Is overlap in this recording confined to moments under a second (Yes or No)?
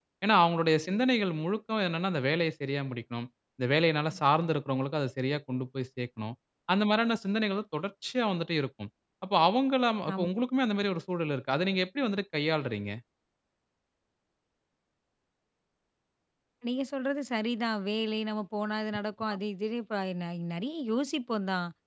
Yes